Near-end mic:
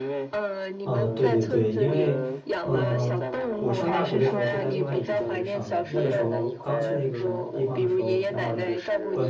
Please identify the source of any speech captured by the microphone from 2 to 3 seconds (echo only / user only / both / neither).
both